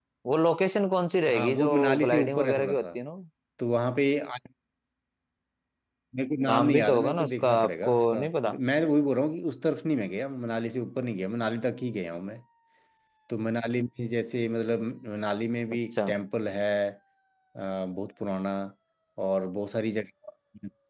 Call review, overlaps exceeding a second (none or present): present